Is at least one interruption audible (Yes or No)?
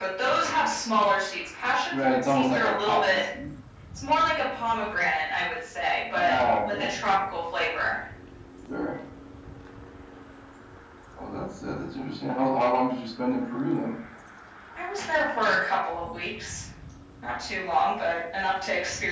Yes